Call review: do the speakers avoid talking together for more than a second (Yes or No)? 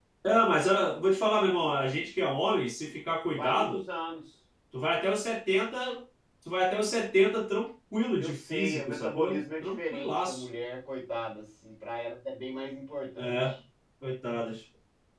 No